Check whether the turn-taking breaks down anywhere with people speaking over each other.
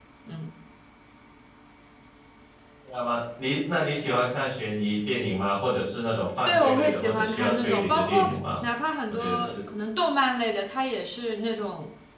Yes, from 6.5 s

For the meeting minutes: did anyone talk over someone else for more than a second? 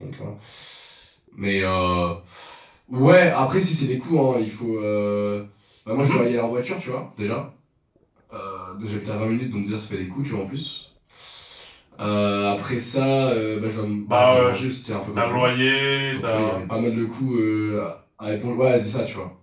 No

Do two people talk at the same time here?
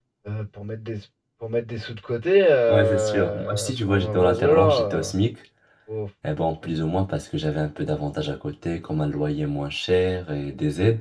Yes, from 2.7 s

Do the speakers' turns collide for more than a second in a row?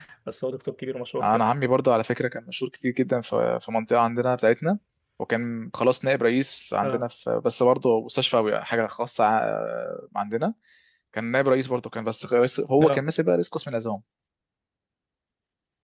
No

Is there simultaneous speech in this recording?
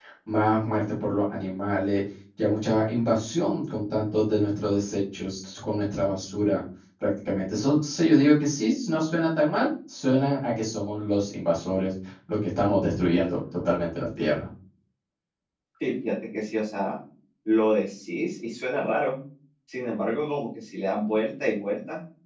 No

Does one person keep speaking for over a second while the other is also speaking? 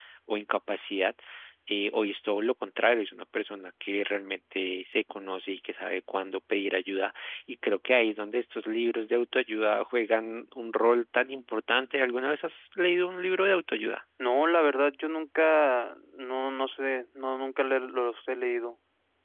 No

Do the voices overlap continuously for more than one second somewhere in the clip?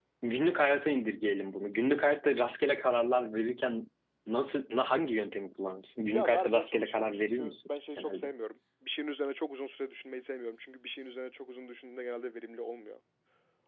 Yes, from 6.1 s

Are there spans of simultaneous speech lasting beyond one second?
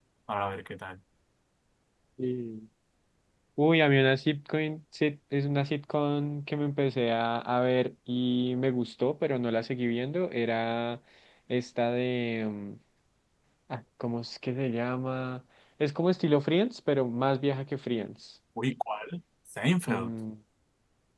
No

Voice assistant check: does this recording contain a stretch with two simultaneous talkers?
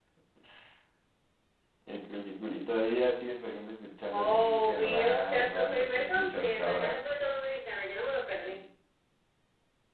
Yes, from 4.1 s

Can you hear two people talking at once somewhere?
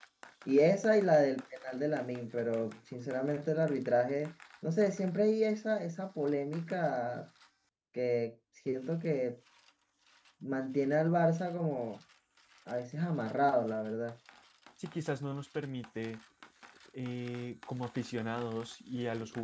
No

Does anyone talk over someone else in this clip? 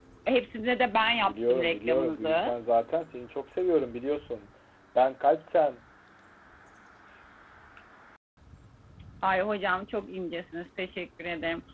Yes, from 1.2 s

